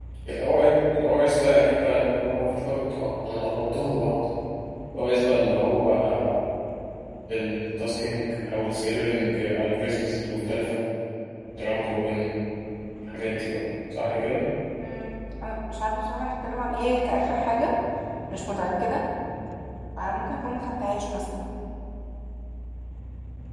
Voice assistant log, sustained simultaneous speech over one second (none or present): none